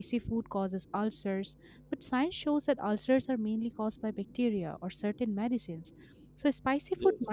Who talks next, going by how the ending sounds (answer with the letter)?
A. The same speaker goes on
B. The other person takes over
A